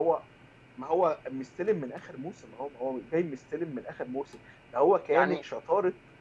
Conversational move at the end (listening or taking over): listening